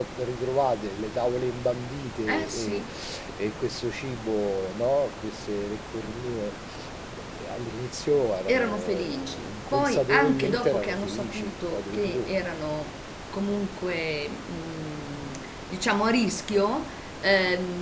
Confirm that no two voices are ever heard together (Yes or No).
No